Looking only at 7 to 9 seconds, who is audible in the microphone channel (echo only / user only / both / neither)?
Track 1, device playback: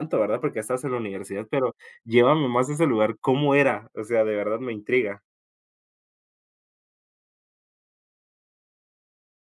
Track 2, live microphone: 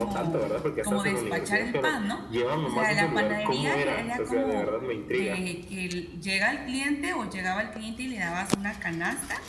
user only